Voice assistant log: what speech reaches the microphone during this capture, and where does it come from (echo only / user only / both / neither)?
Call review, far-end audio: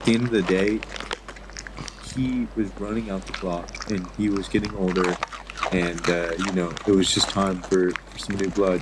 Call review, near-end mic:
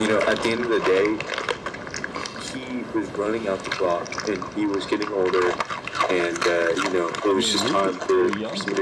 both